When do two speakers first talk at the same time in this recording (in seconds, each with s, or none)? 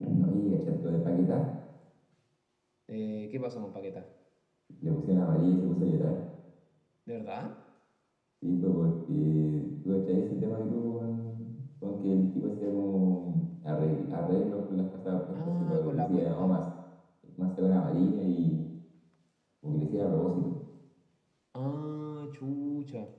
15.3 s